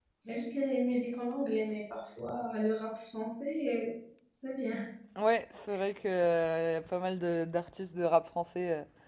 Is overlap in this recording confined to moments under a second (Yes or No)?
Yes